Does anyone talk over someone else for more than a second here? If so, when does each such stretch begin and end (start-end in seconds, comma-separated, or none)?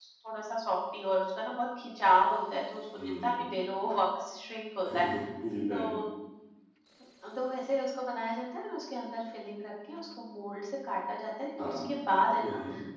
none